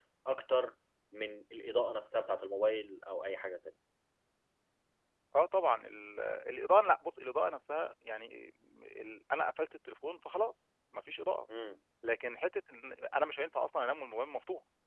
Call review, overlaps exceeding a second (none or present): none